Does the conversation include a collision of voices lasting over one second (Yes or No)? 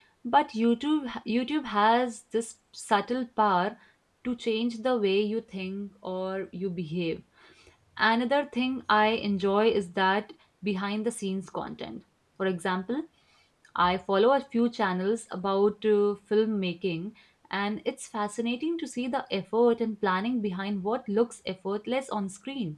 No